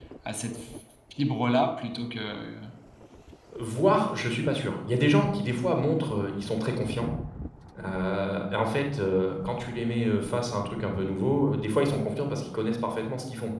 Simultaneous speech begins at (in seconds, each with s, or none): none